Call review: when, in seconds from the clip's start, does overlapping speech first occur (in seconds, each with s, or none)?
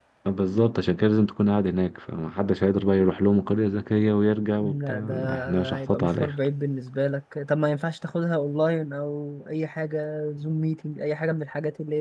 4.6 s